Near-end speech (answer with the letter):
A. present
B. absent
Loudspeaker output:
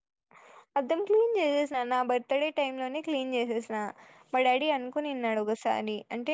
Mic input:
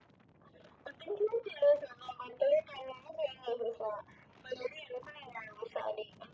B